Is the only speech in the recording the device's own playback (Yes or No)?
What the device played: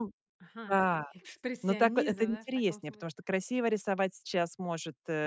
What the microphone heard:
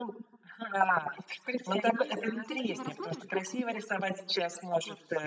No